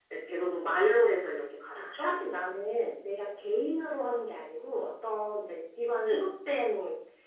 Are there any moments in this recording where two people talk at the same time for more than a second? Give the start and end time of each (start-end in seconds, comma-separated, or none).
none